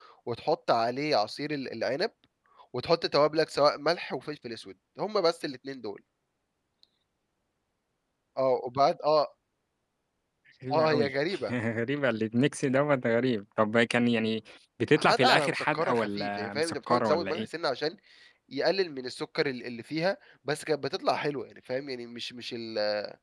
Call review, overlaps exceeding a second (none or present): present